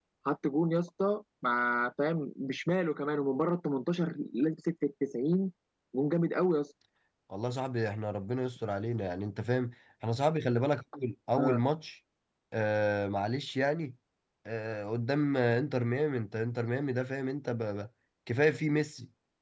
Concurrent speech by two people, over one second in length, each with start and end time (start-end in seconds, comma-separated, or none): none